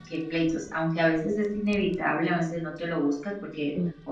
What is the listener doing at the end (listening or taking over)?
listening